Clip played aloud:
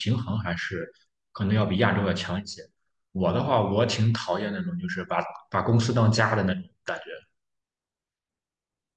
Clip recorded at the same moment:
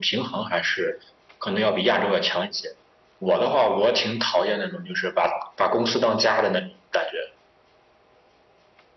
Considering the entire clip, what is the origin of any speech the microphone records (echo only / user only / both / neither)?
echo only